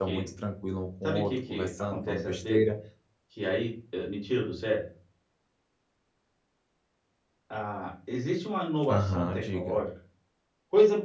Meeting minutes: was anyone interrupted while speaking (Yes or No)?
Yes